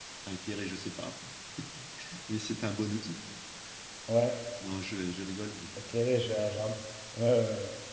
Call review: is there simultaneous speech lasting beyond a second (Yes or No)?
No